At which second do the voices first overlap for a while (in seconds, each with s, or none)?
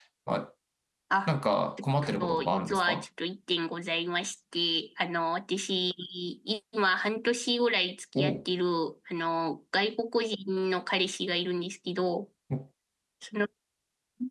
1.8 s